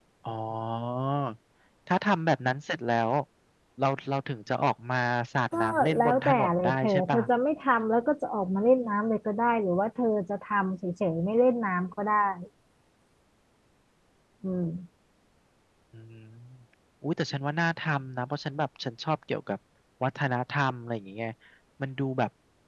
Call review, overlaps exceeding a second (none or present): present